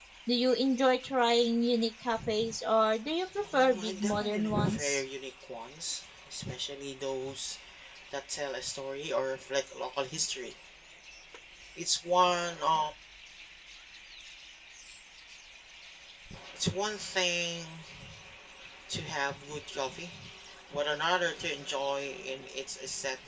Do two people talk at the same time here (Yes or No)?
Yes